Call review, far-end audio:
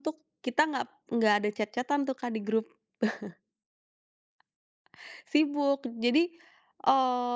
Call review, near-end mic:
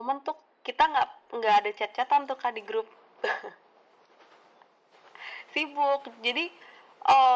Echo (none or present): present